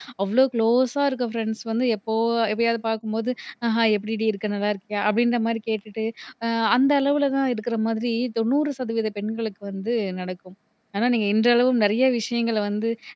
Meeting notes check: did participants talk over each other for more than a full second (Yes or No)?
No